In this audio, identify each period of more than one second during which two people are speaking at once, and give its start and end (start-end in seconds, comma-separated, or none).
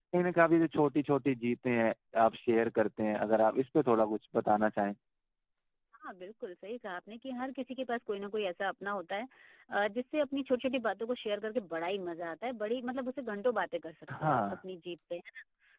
none